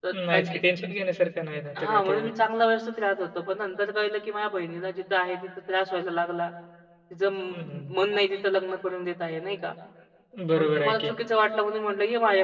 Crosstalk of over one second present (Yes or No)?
No